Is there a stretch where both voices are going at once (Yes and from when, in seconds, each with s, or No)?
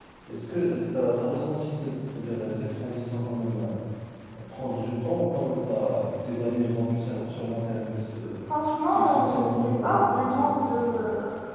Yes, from 8.8 s